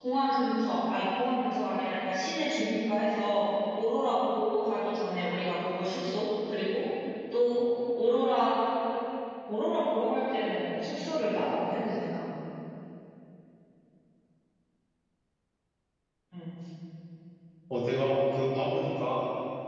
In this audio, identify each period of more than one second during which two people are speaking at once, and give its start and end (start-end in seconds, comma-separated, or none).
none